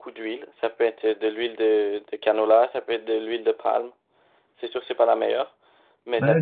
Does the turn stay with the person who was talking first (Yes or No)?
No